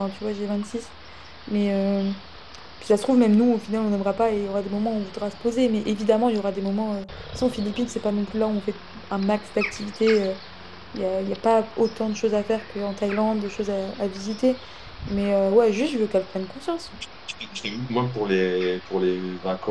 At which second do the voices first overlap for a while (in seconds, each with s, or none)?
none